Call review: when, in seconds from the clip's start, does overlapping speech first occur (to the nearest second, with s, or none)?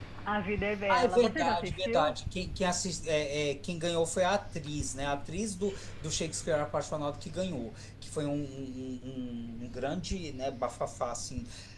1 s